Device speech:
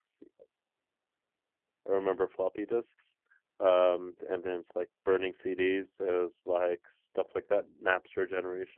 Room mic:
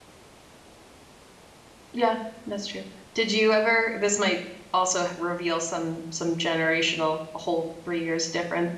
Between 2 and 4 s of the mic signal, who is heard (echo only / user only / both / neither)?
user only